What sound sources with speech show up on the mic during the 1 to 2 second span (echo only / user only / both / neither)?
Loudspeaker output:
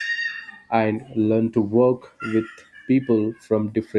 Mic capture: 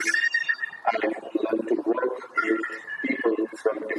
echo only